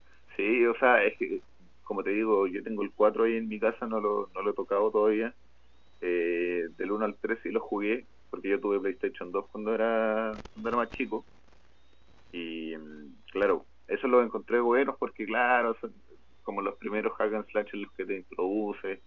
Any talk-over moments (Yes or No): No